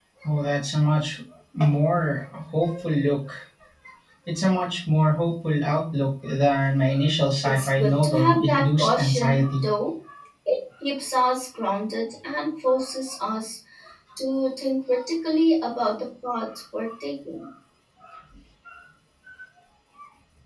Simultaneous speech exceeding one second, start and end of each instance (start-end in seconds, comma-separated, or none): 7.4-9.6